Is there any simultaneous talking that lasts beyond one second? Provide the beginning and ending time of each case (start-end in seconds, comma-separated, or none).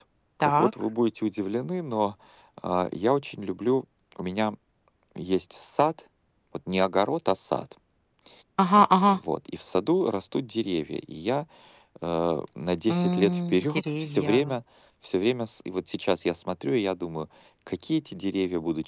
12.9-14.5